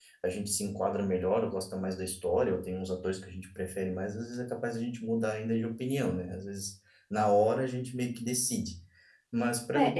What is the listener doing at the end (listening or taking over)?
taking over